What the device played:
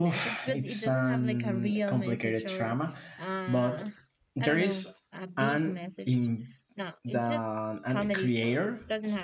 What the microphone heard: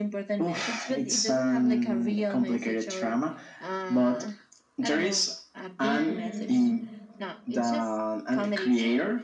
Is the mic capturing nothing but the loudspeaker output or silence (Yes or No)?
No